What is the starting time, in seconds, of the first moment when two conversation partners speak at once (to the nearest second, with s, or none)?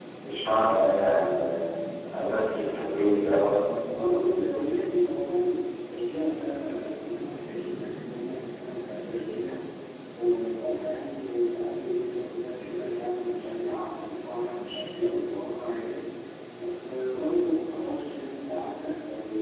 none